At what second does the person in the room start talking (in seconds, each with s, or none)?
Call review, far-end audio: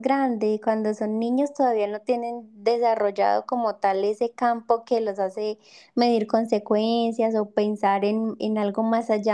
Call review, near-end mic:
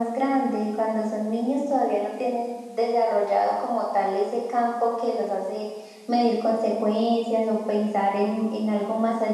none